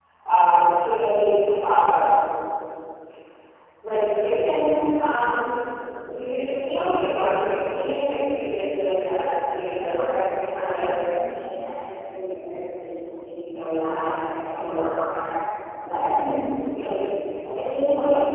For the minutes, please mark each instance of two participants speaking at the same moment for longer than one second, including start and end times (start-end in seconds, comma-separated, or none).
9.6-10.9